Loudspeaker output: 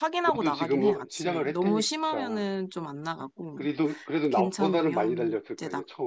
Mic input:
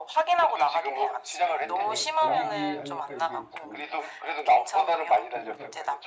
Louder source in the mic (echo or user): echo